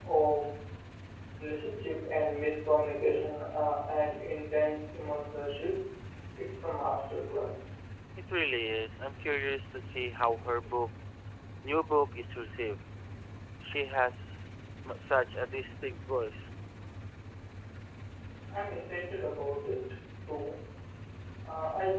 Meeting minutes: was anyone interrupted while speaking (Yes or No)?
No